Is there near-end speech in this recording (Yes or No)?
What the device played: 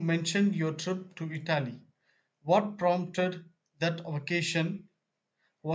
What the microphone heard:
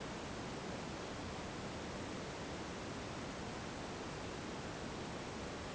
No